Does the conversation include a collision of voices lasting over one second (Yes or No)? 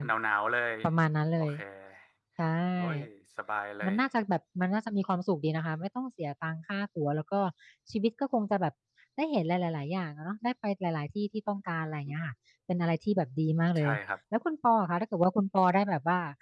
No